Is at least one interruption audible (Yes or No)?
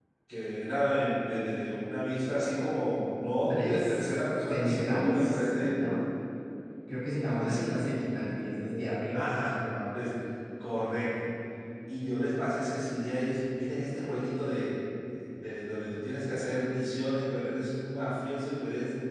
Yes